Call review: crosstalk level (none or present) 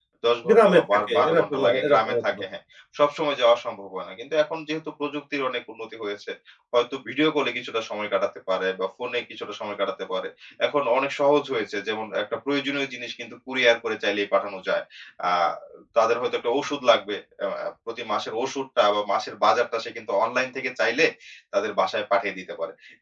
present